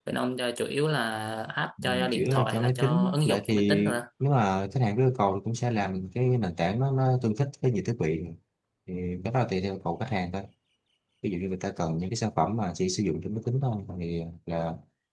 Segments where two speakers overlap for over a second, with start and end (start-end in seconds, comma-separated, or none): 1.8-3.8